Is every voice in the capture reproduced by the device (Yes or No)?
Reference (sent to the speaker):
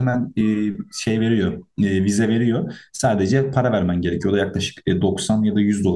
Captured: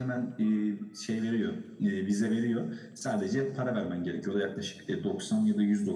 Yes